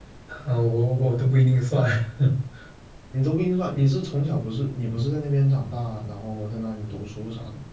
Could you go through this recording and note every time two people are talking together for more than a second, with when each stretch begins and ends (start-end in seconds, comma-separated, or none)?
none